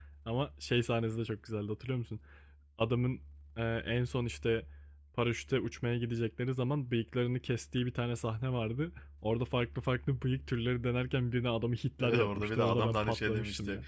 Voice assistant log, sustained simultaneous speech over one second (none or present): present